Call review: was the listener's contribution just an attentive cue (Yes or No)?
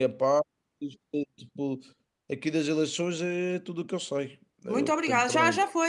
No